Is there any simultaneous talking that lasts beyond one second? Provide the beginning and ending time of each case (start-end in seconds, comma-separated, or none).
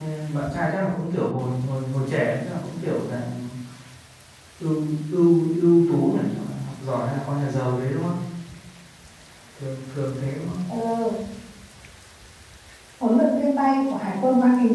none